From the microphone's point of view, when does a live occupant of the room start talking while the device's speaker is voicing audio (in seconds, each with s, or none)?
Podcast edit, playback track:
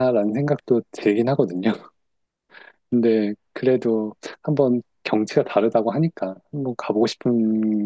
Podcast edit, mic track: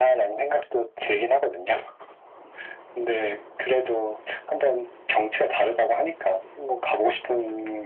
none